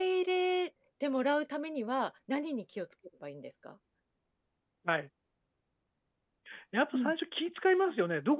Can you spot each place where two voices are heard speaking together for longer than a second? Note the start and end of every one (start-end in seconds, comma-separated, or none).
none